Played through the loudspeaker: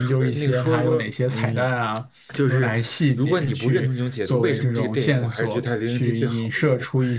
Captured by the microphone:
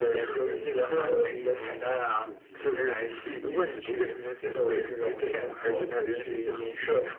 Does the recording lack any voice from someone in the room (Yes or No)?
No